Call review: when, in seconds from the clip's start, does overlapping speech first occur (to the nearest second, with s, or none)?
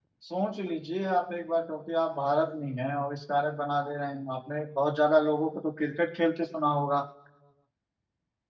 none